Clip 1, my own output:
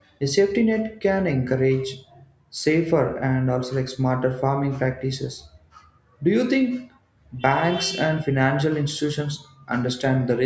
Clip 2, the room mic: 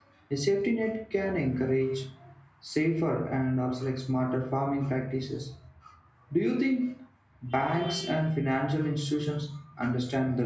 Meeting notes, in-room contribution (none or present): none